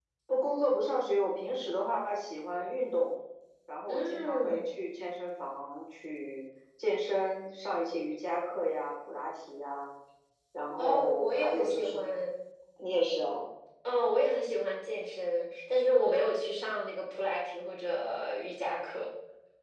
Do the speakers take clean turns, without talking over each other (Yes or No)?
No